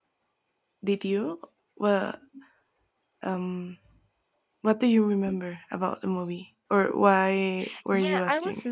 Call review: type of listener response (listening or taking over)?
taking over